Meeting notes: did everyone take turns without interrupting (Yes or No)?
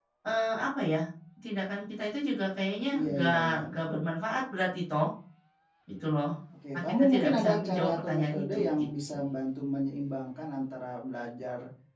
No